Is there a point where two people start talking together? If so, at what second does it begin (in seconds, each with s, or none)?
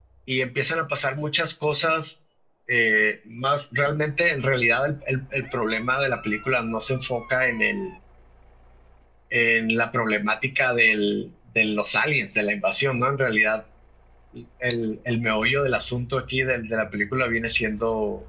none